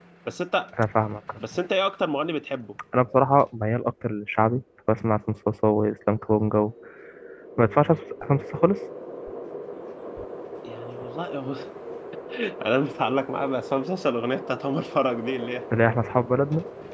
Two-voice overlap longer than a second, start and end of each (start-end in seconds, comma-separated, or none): none